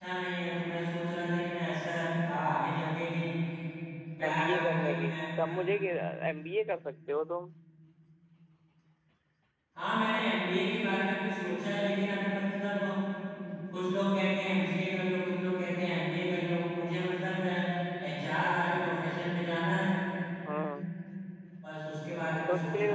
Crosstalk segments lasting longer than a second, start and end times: 4.3-5.6

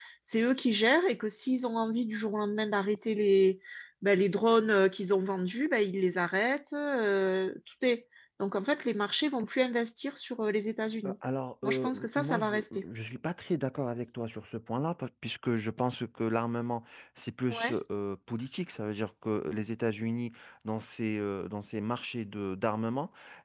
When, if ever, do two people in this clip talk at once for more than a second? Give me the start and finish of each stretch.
11.6-12.8

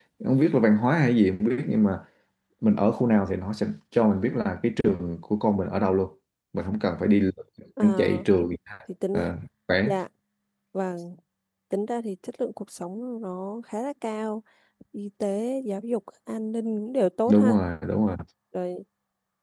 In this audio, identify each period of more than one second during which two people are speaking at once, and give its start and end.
none

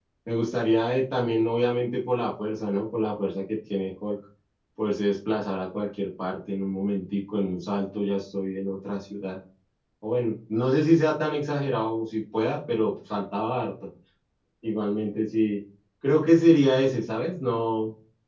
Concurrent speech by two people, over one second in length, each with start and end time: none

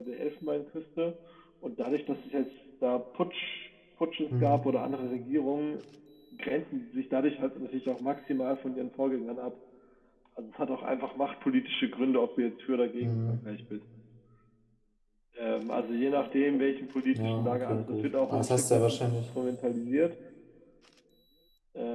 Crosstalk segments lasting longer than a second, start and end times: 17.1-19.2

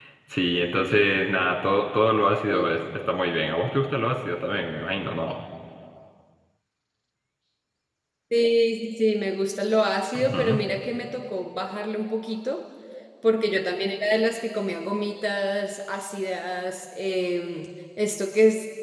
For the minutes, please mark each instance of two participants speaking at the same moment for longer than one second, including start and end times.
none

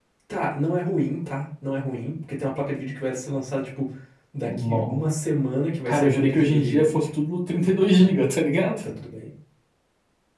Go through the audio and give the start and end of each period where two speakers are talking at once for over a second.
5.9-7.1

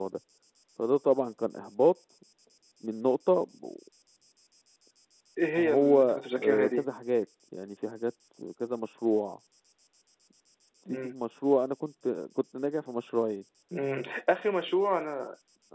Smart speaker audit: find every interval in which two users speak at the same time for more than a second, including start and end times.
5.5-6.9

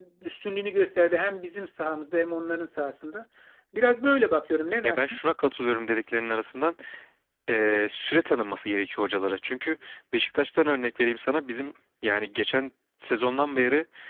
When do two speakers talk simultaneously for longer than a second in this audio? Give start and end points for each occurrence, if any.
none

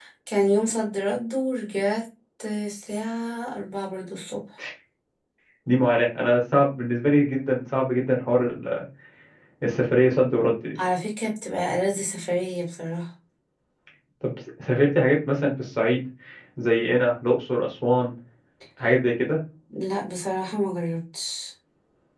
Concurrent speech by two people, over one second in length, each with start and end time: none

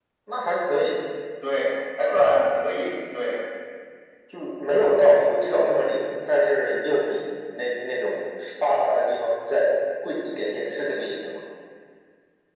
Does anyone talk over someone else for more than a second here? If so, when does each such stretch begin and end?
none

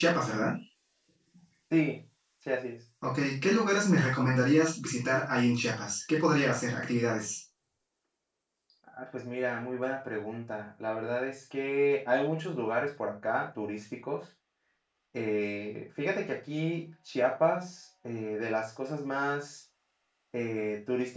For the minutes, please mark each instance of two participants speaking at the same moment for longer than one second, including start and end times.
none

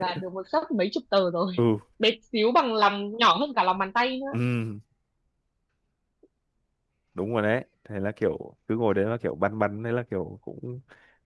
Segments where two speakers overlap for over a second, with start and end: none

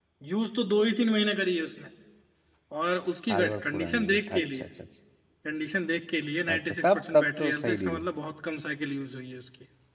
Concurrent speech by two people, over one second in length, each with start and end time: 3.3-4.6, 6.5-8.0

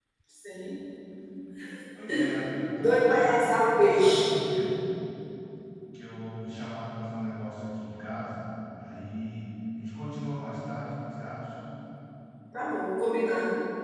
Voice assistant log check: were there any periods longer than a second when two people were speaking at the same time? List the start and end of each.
2.8-4.3

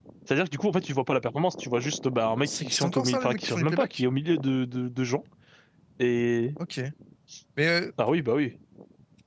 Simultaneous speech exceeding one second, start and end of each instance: 2.5-4.0

